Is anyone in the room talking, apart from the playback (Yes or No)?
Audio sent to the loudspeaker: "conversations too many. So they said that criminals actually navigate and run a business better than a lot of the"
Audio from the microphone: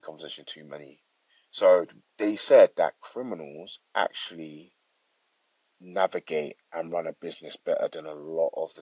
No